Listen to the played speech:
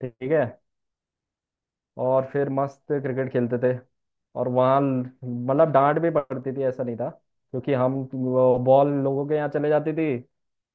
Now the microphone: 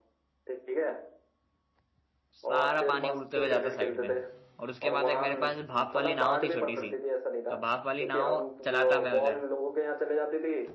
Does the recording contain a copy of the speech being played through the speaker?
Yes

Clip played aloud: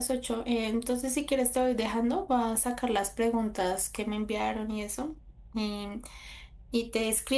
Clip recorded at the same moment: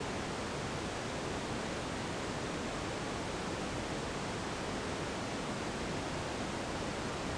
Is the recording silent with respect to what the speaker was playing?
Yes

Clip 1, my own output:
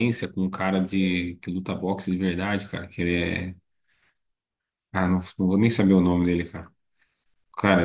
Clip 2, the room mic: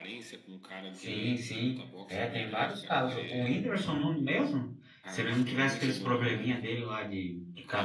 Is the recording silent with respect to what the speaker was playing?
No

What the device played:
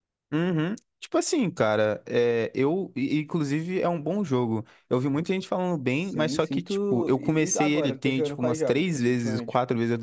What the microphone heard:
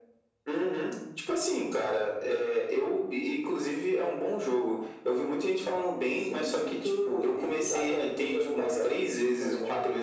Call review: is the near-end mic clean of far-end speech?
No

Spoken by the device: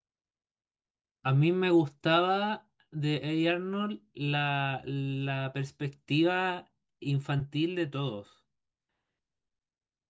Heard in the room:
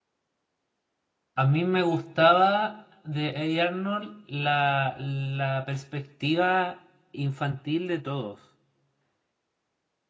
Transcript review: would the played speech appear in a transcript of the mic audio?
Yes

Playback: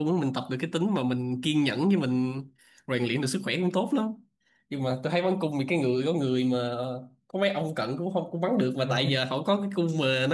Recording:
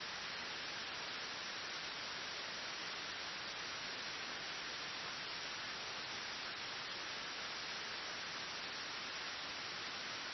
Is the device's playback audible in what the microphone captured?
No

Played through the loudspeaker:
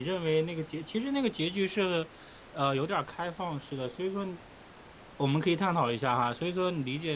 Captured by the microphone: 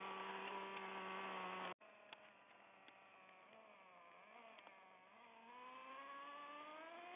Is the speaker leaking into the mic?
No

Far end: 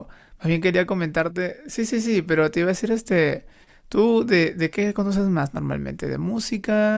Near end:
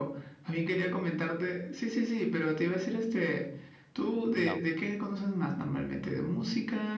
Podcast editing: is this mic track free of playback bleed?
No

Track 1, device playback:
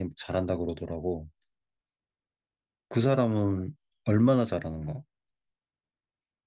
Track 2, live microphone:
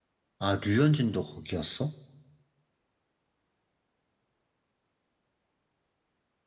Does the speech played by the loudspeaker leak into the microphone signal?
No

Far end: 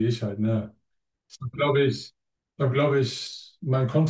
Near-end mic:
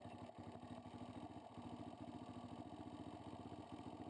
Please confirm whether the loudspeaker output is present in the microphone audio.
No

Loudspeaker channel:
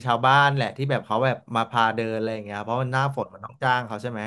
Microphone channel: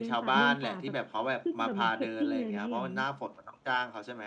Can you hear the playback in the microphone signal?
Yes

